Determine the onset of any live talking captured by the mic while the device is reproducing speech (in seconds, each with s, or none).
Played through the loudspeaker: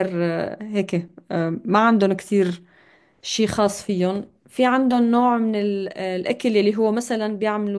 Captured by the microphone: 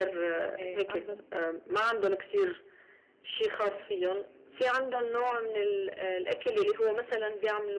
0.6 s